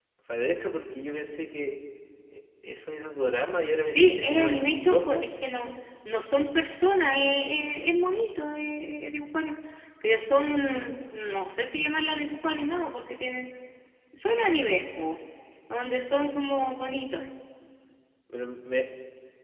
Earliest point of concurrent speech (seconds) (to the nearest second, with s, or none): 4 s